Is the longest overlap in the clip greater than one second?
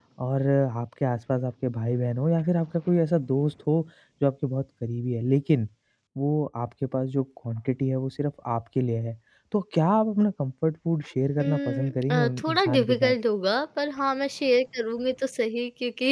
Yes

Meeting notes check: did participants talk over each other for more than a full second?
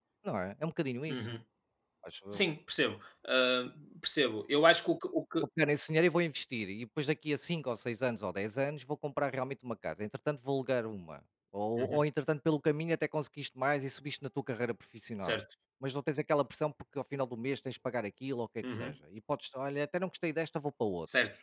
No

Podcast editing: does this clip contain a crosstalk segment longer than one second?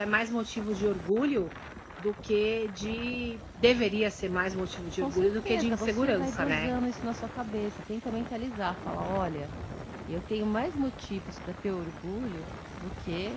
Yes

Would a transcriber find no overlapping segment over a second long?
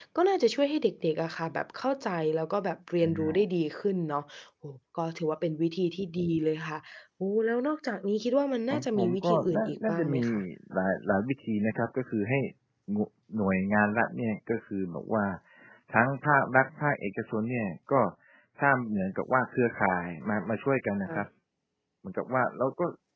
No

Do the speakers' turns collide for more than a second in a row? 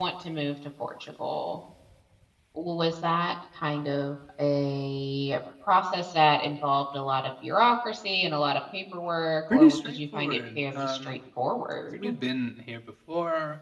Yes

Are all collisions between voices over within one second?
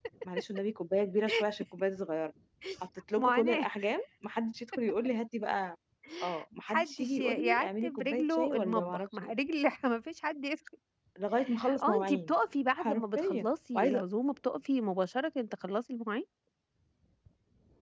No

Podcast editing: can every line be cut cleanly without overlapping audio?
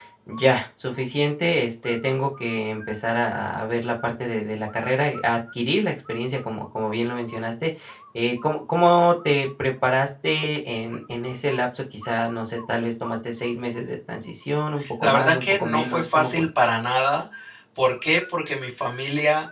No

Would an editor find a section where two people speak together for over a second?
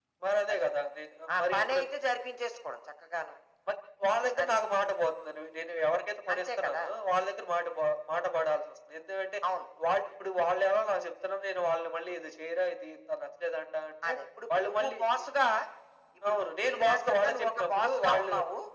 Yes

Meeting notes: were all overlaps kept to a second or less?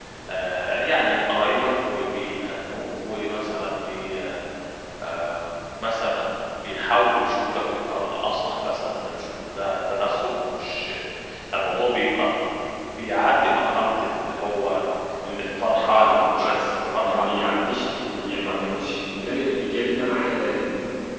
No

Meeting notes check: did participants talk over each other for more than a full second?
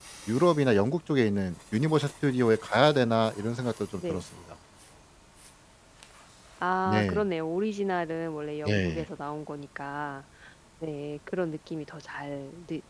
No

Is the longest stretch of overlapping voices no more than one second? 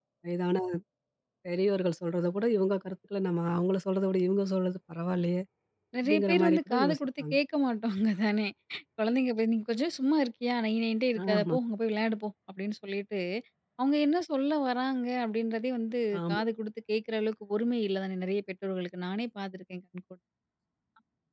No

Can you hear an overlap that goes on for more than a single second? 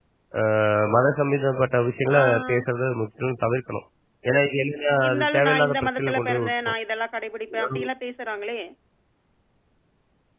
Yes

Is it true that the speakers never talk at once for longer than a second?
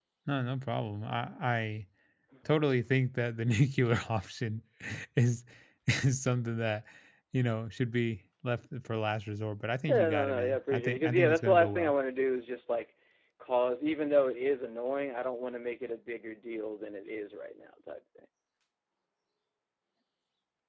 No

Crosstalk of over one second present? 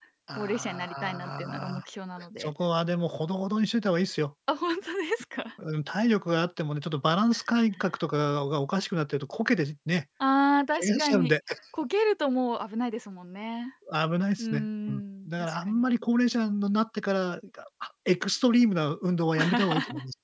Yes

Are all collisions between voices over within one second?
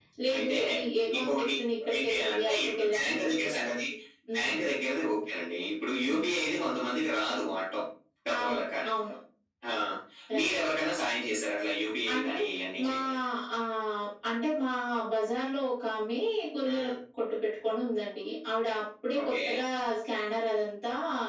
No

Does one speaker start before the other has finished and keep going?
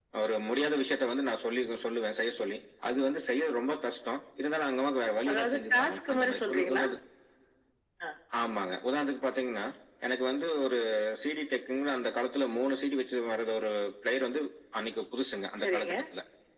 Yes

